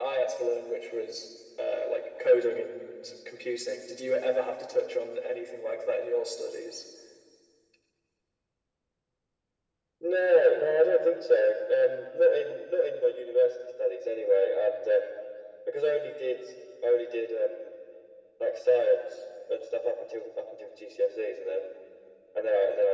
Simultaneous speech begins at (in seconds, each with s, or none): none